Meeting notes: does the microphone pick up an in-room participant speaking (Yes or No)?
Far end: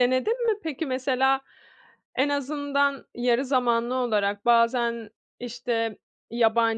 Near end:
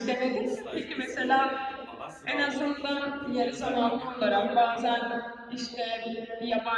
Yes